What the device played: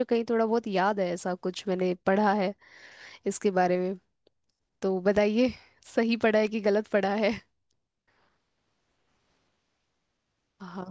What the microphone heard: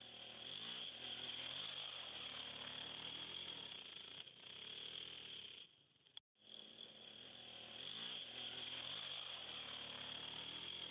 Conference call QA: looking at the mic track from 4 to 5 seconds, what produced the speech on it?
neither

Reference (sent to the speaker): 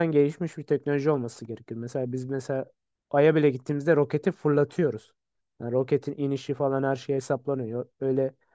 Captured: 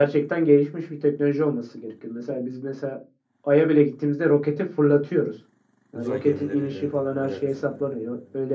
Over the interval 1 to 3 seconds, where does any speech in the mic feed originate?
echo only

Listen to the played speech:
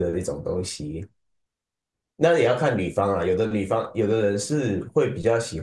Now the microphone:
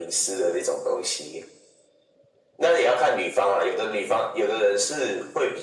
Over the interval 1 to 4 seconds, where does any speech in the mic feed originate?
echo only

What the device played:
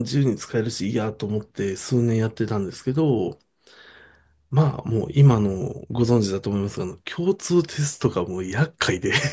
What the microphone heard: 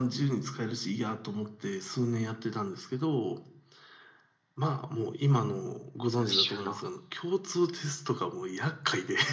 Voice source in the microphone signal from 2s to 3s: echo only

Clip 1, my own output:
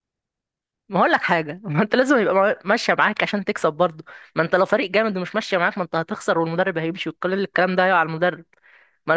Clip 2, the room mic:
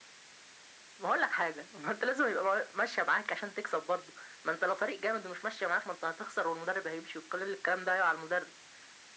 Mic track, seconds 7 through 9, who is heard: echo only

